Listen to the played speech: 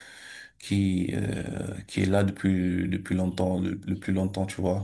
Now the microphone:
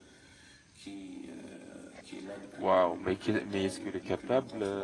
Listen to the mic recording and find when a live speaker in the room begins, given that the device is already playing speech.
2.5 s

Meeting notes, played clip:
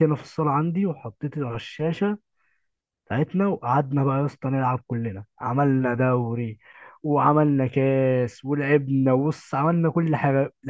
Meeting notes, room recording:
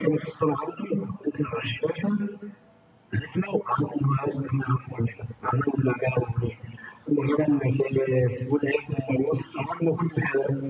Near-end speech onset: none

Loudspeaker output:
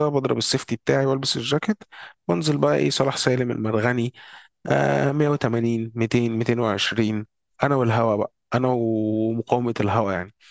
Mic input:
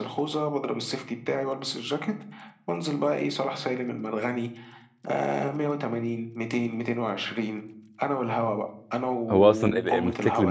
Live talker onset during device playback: 9.3 s

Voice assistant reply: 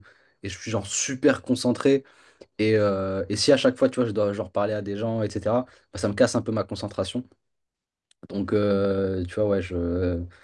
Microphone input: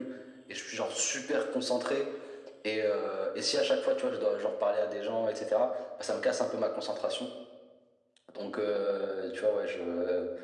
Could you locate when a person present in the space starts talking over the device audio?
none

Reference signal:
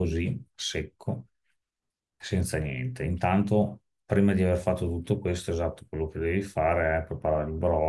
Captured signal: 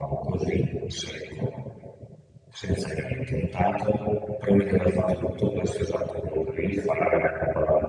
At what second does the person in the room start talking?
none

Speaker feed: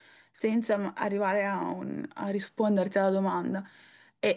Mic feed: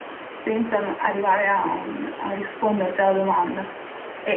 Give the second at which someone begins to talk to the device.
none

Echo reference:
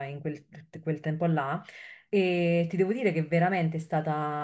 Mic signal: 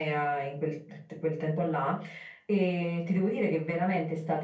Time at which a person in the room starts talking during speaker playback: none

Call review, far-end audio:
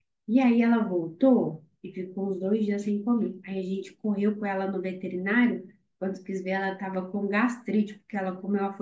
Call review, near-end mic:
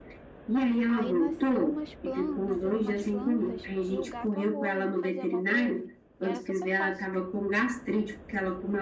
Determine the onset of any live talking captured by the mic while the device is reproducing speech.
0.8 s

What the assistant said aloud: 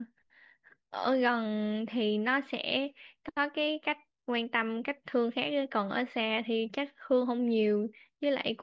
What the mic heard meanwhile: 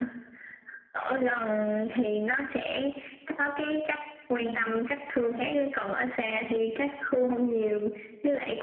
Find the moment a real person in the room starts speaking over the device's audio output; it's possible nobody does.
4.3 s

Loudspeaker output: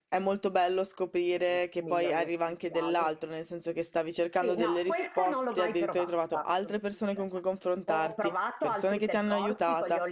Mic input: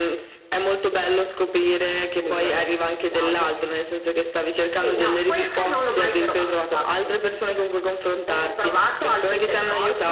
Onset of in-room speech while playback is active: none

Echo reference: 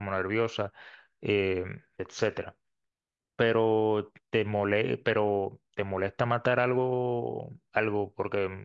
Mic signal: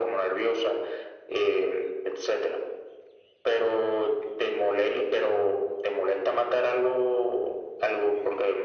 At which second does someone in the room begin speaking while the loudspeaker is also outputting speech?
none

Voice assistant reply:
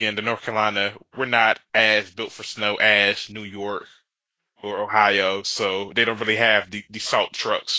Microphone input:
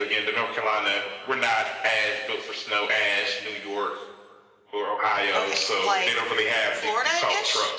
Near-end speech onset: 5.3 s

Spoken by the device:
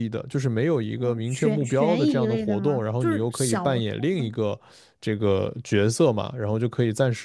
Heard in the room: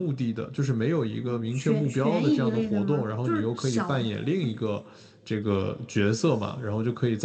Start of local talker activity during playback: none

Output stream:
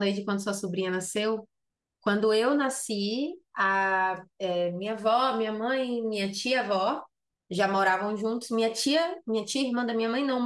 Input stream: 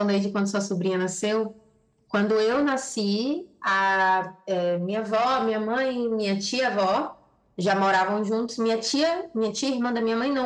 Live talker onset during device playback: none

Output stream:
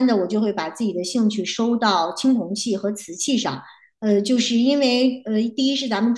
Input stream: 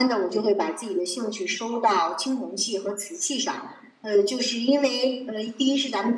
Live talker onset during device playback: none

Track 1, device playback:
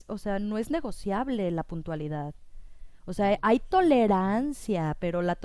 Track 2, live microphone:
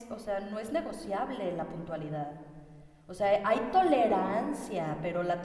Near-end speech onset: none

